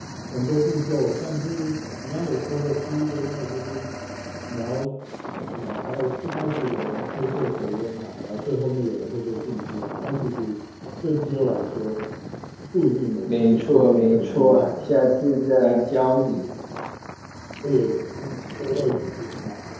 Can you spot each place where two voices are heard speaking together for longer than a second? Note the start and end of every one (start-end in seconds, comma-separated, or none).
13.2-14.9